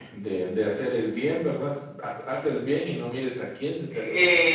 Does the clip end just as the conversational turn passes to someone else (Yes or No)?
Yes